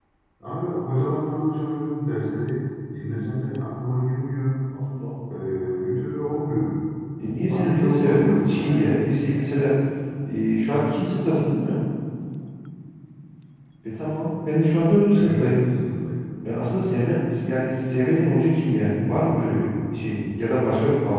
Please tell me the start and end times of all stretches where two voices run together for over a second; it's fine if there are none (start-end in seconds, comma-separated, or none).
7.5-9.0